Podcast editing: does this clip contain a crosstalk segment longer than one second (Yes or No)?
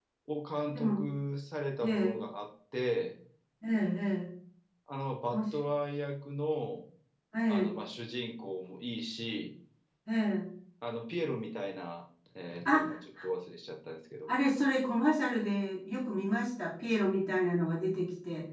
No